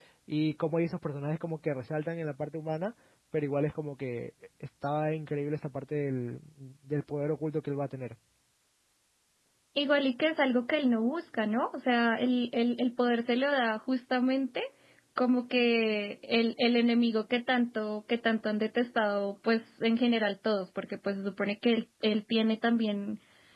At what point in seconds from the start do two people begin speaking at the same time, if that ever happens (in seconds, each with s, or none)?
none